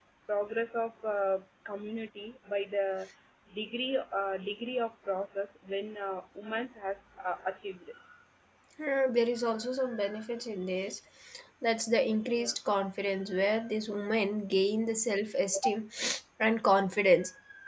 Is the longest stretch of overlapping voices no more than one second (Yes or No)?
Yes